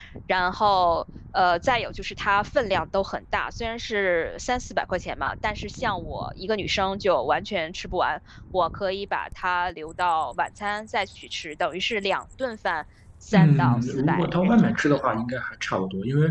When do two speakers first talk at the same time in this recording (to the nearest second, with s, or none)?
13 s